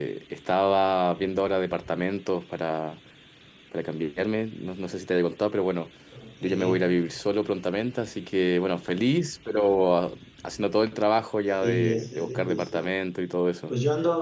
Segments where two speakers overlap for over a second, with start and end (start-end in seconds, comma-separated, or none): 11.5-12.8